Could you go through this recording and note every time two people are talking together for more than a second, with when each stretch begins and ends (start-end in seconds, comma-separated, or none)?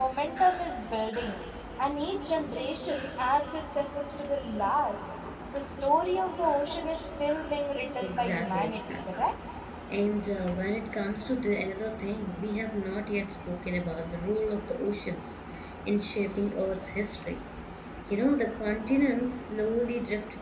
8.0-9.2